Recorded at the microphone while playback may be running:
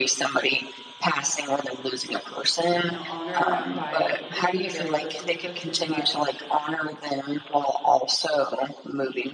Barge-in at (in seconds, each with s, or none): 2.9 s